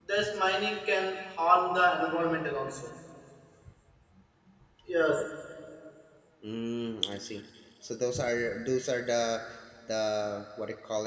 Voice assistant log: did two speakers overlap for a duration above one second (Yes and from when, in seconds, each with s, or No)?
No